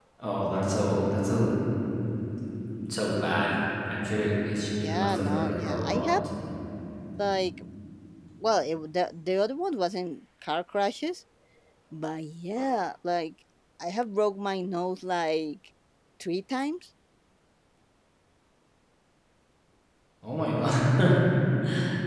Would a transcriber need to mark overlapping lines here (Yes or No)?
Yes